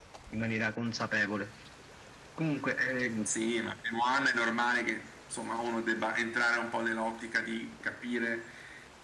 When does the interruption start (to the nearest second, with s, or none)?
none